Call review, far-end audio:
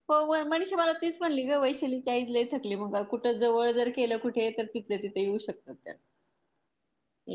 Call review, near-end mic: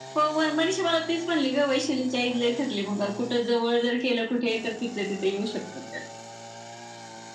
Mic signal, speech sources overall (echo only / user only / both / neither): echo only